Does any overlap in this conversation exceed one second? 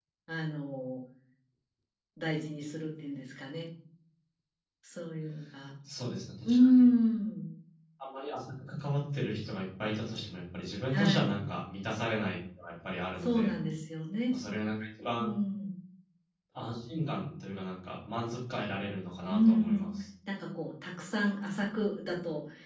No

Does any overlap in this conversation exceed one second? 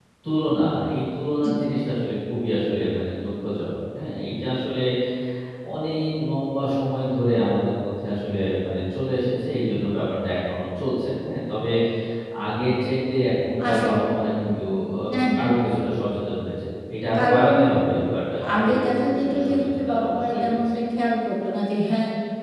Yes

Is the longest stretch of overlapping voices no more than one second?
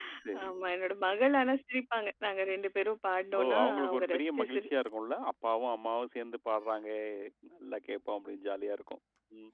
No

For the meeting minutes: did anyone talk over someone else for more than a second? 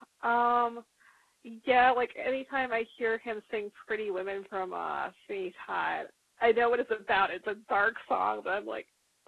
No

